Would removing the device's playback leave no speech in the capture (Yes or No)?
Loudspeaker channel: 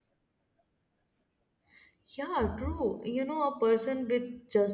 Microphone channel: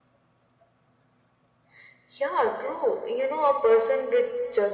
Yes